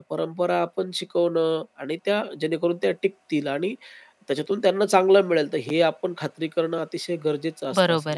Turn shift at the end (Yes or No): Yes